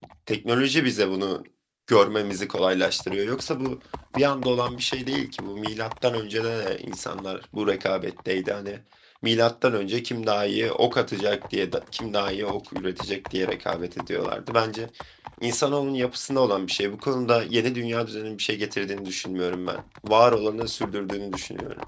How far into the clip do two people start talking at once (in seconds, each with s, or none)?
none